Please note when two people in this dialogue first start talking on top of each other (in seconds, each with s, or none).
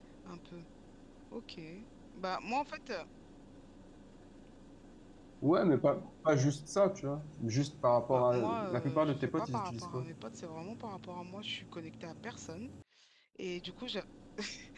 8.1 s